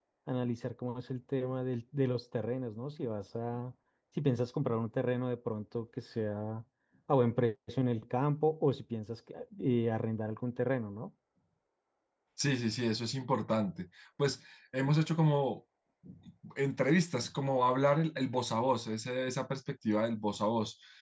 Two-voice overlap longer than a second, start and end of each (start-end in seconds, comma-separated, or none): none